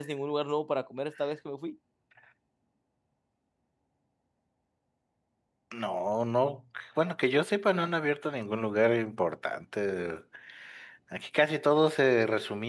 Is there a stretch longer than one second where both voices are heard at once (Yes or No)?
No